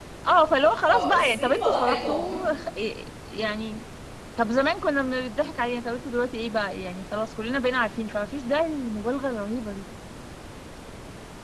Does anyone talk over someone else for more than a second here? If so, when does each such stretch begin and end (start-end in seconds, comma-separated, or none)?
0.9-2.4